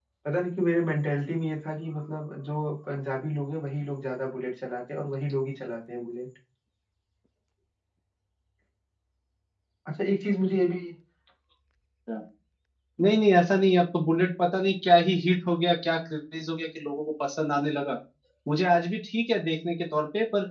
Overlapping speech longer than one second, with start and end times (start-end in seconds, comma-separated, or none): none